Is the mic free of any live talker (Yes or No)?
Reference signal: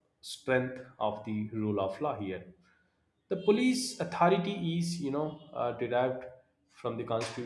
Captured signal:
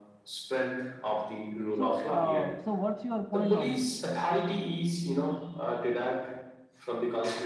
No